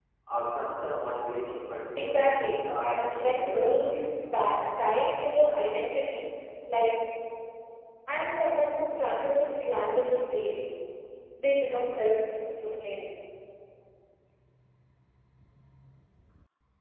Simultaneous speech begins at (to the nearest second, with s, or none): 2 s